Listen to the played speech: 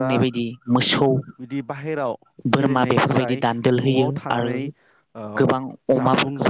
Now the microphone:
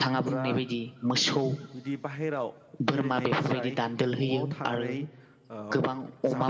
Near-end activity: none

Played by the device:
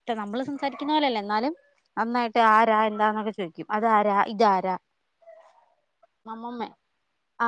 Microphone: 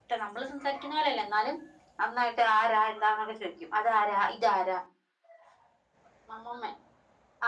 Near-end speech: none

